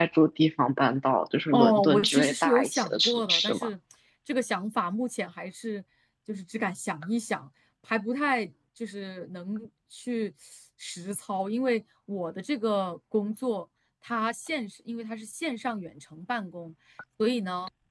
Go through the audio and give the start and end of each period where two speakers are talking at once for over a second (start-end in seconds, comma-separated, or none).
1.5-3.7